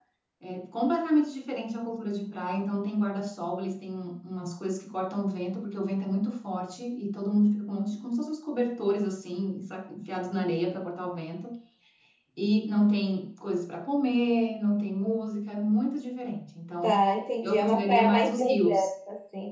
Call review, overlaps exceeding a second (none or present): present